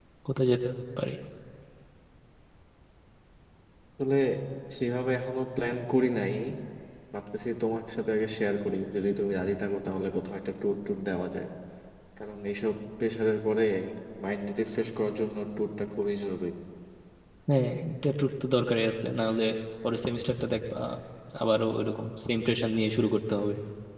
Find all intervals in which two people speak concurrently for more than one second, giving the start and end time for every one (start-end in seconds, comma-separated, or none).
none